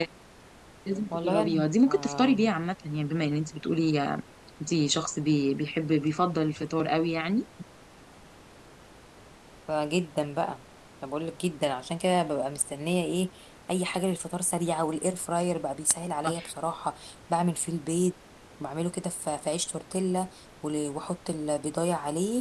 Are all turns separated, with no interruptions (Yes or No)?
No